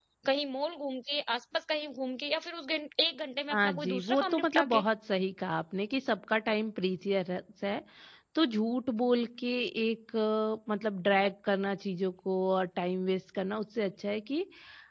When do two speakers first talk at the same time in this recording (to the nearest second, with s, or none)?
4 s